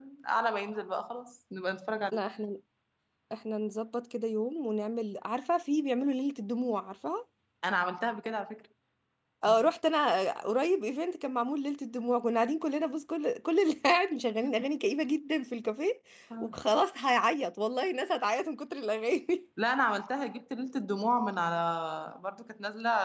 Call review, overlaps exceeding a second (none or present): none